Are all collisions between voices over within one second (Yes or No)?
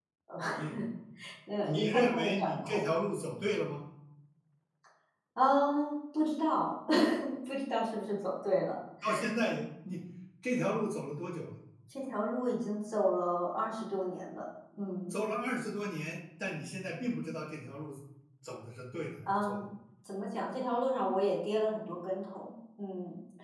No